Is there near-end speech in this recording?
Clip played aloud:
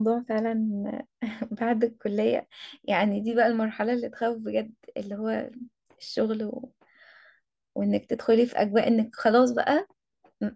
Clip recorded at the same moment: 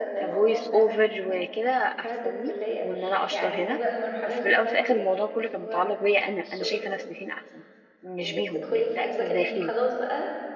Yes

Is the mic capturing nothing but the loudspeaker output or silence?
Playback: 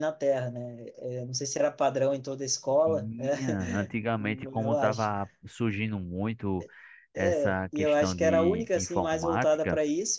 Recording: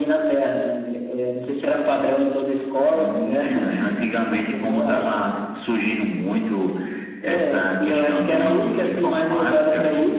Yes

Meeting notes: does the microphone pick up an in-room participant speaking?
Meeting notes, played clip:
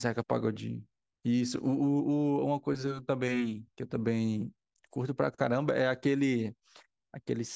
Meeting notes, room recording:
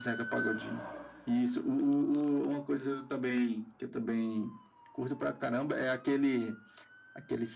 No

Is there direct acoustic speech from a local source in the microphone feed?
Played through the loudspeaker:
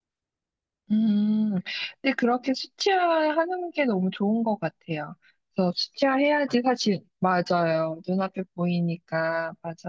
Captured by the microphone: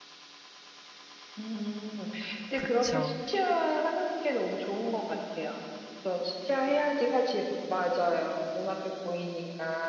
Yes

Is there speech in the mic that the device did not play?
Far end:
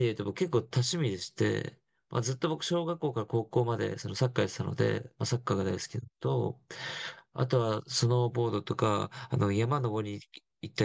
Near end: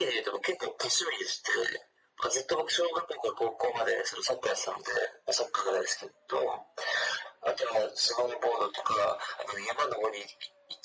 No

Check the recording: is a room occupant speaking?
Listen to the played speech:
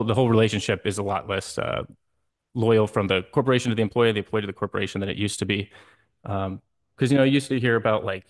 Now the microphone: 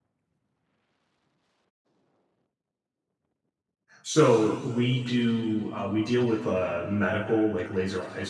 Yes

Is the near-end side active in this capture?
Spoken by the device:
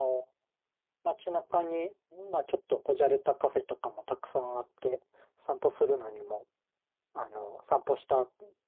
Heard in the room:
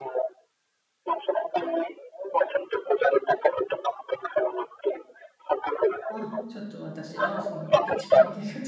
Yes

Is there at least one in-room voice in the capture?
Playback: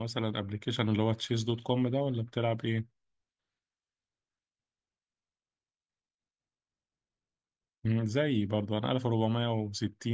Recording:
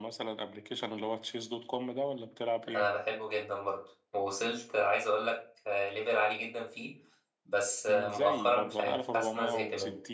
Yes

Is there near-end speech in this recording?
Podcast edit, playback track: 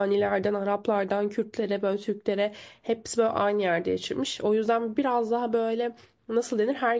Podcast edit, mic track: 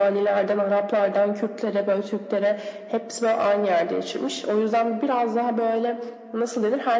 No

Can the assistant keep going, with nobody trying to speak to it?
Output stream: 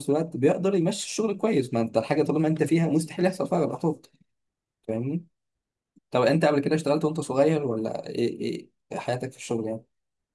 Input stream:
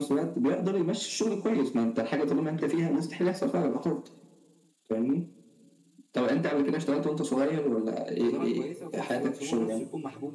No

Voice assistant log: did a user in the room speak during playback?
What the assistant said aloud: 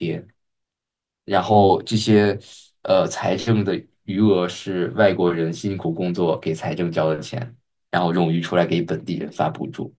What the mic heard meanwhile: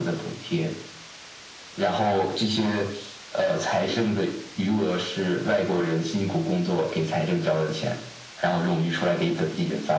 No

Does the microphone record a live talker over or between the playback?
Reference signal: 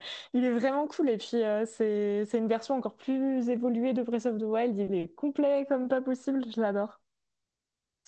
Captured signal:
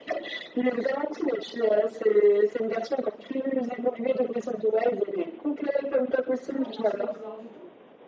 Yes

